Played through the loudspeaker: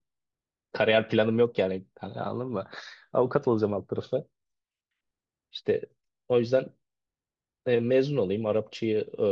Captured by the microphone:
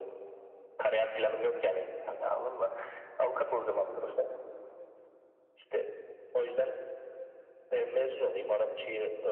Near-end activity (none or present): none